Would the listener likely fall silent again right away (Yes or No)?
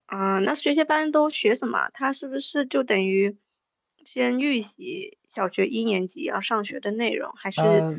Yes